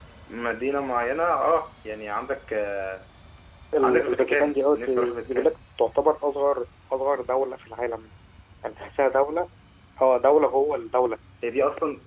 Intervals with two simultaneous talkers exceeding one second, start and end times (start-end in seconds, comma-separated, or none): 3.8-5.5